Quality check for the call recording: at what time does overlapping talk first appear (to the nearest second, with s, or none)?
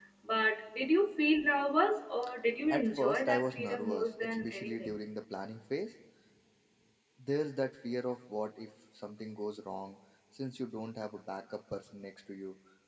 3 s